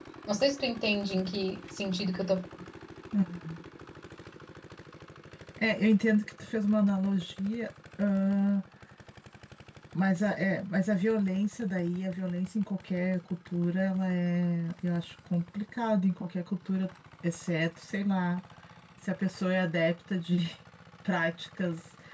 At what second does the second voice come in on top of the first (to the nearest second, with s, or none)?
none